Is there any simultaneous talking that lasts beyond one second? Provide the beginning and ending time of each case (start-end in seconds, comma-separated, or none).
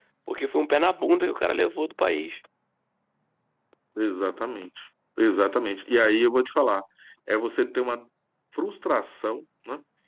none